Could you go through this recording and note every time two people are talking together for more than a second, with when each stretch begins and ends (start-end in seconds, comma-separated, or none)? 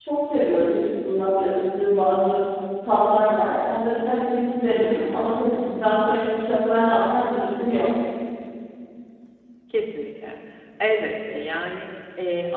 none